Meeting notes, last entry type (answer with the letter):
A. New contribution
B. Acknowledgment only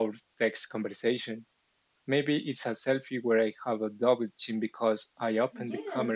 A